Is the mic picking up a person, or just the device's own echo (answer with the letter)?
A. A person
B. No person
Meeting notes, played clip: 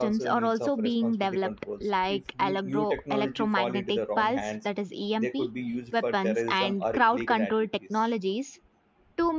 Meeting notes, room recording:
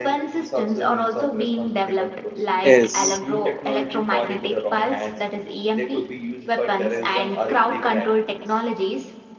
A